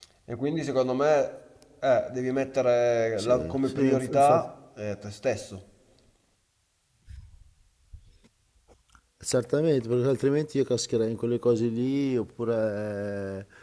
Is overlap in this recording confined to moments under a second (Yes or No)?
No